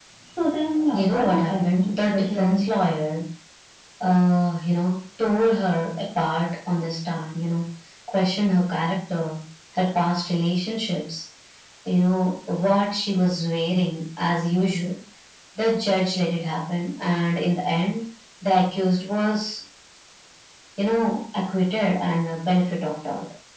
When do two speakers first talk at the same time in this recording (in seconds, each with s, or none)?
0.9 s